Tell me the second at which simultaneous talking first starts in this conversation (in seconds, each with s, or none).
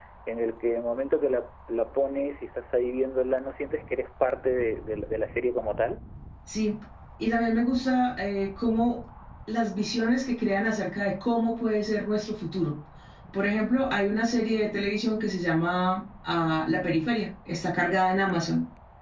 none